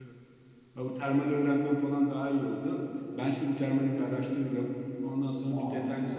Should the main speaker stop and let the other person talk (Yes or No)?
No